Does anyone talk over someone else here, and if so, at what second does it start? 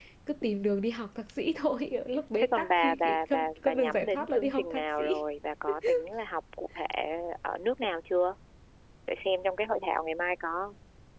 2.4 s

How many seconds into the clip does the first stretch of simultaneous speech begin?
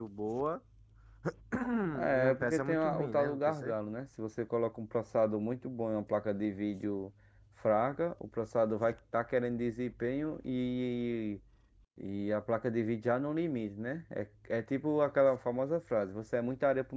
2.2 s

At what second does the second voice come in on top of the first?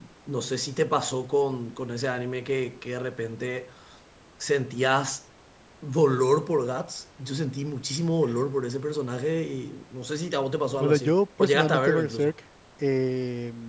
10.7 s

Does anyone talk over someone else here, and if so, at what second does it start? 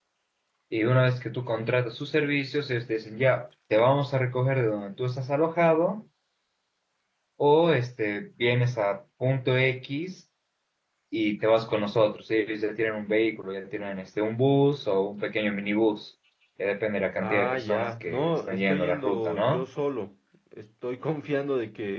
17.2 s

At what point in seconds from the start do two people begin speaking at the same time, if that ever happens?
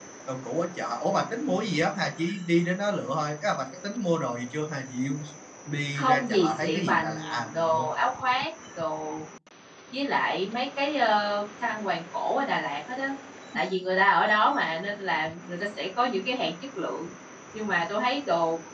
5.9 s

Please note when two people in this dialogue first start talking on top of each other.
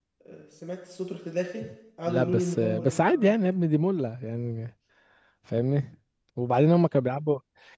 2.1 s

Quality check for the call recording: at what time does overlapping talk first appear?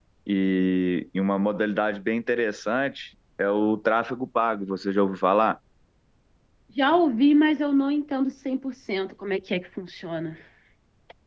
none

